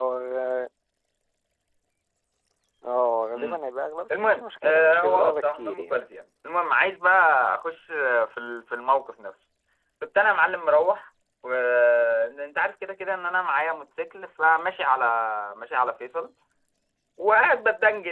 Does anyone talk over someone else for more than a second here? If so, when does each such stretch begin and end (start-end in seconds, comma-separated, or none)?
4.1-6.0